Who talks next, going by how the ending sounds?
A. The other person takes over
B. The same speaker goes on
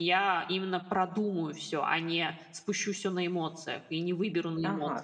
A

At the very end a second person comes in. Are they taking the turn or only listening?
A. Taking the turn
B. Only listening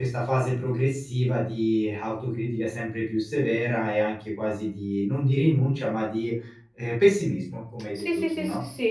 A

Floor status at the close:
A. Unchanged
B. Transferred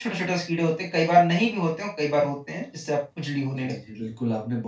B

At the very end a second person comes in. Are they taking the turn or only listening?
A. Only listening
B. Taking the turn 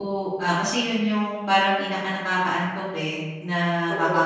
A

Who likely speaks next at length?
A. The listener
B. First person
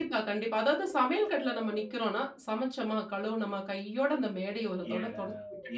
A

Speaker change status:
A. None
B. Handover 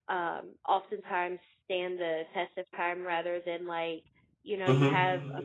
A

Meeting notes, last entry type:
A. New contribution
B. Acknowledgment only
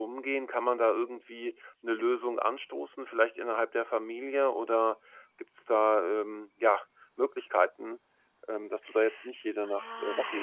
A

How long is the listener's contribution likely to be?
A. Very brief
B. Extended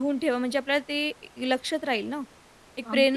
A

